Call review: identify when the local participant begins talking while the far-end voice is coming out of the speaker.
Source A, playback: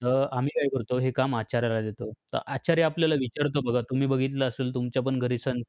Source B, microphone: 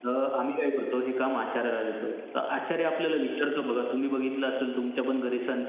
none

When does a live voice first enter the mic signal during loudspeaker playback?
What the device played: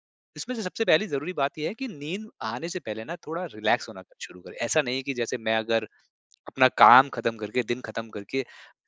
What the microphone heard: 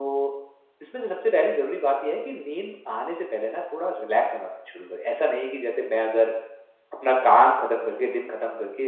none

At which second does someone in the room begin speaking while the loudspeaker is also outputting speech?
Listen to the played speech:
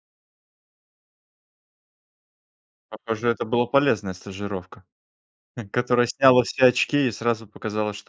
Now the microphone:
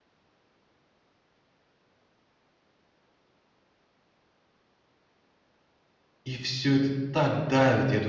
6.2 s

